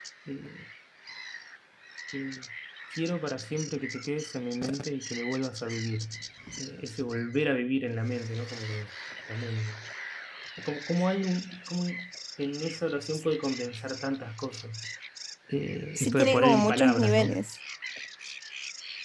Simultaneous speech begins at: 16.0 s

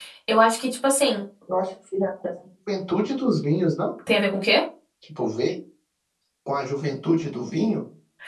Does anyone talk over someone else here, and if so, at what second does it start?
none

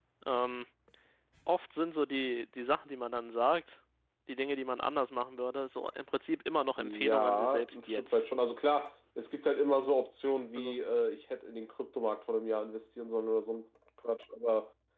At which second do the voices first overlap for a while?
6.8 s

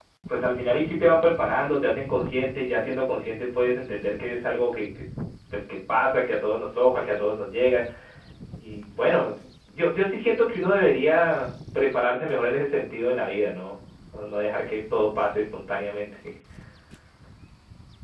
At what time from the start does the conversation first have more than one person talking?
none

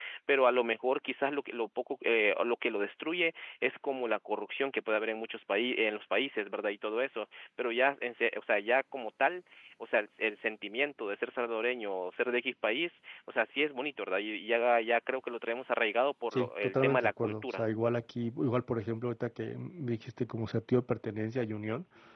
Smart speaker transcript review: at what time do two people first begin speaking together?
16.3 s

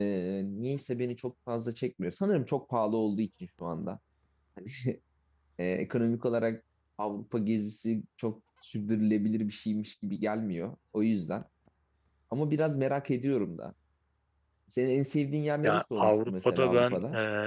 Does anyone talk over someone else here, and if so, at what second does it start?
15.6 s

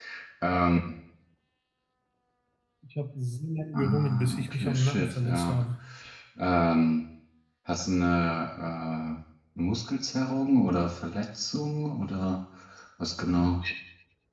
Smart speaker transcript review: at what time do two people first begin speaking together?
3.7 s

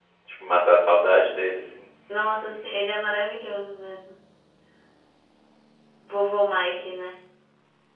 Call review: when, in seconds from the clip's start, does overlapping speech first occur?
none

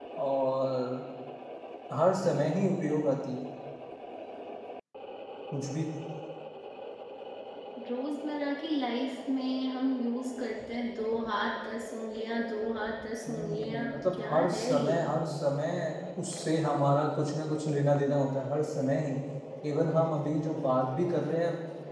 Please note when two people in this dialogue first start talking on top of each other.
13.3 s

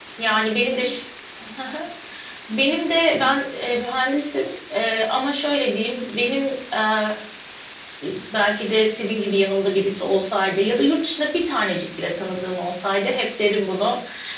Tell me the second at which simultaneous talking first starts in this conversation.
none

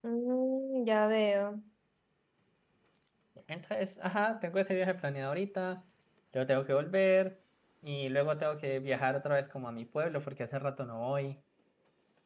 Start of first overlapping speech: none

